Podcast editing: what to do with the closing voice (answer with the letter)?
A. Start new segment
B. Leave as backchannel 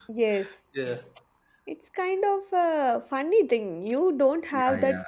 B